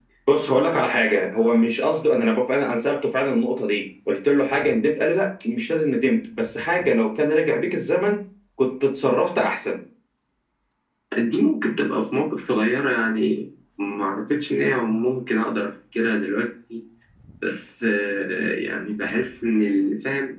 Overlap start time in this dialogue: none

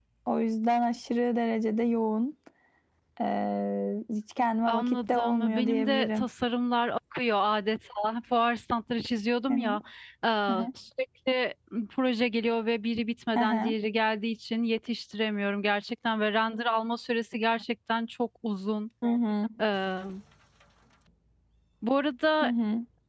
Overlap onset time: 5 s

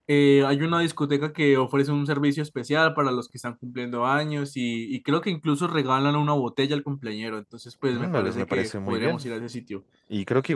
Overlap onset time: 8 s

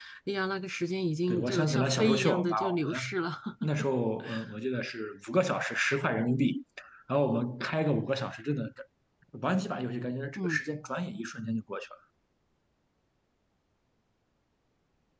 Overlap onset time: 1 s

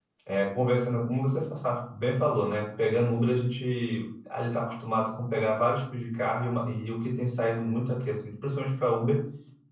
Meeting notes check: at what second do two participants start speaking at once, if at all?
none

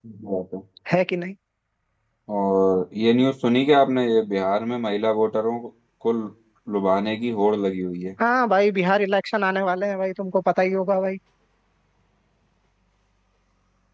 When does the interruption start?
none

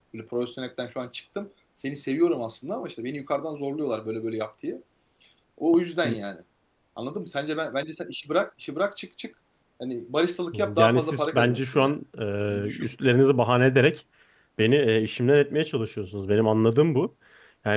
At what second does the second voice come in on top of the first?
11 s

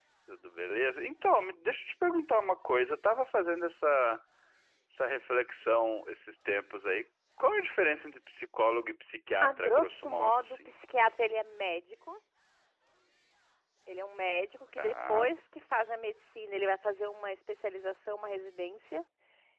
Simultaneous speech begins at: 9 s

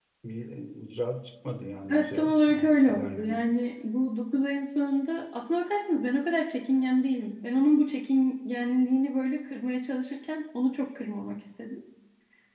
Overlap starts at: 2 s

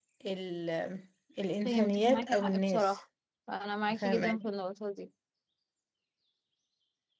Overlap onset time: 2 s

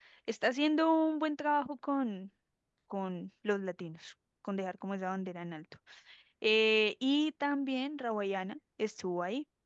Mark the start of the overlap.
none

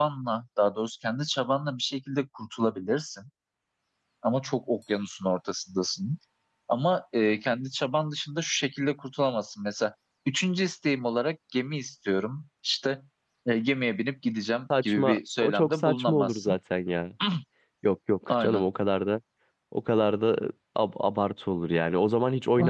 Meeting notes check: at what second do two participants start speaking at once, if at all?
15 s

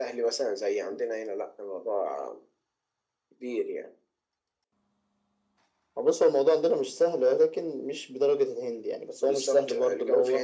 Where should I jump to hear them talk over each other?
9 s

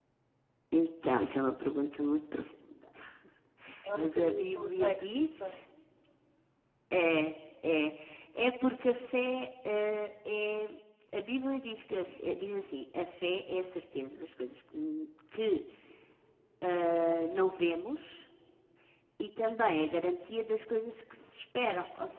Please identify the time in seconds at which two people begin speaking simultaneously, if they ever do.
4 s

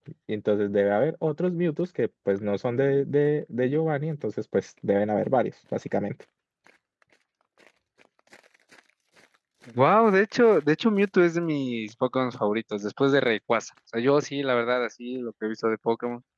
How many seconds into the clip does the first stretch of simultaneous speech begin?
none

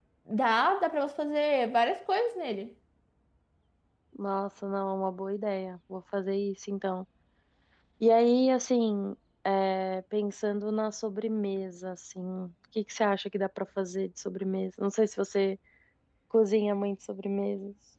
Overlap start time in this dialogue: none

